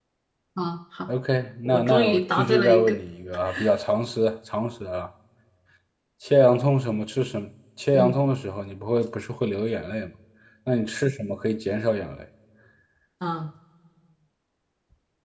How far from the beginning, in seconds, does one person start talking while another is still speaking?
2 s

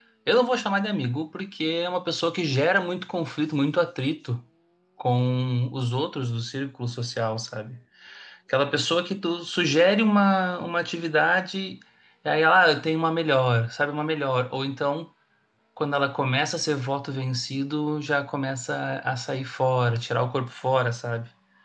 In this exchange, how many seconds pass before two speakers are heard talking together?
none

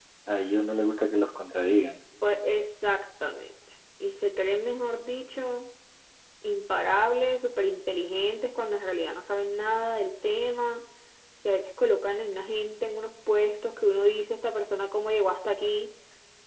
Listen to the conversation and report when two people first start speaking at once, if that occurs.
none

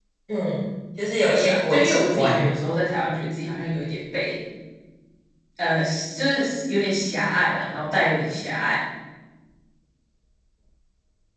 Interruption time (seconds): 1 s

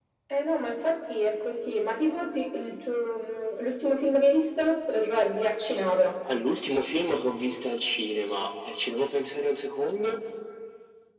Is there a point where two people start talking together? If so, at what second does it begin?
none

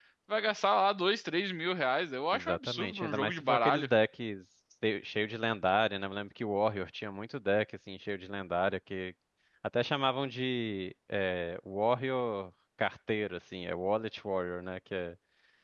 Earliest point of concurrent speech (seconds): 2 s

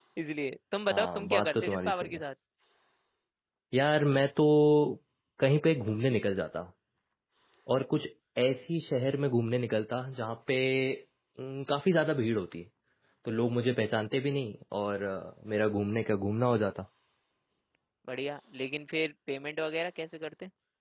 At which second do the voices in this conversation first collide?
1 s

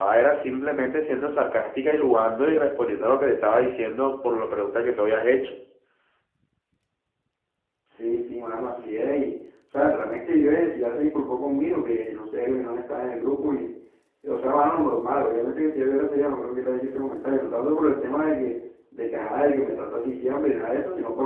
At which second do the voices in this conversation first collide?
none

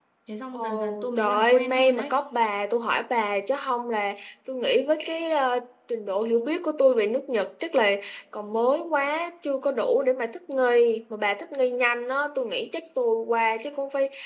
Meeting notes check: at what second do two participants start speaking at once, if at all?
1 s

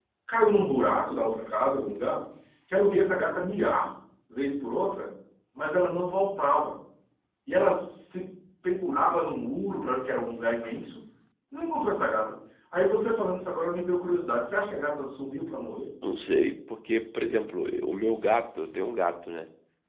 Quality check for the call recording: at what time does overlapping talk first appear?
none

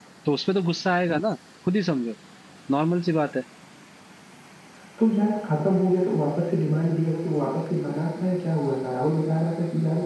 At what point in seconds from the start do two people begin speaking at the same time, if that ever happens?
none

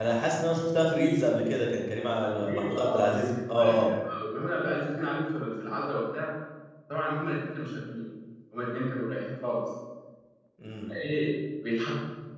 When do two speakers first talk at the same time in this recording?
2 s

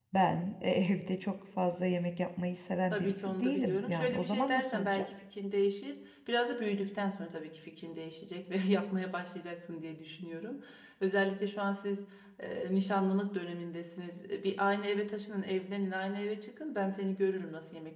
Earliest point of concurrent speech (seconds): 3 s

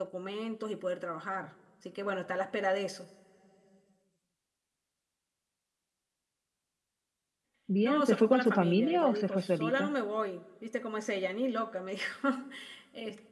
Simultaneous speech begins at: 8 s

